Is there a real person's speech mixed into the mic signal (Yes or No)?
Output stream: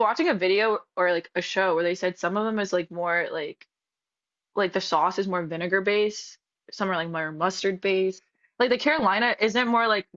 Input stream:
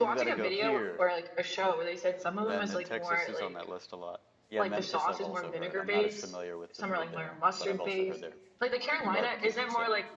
Yes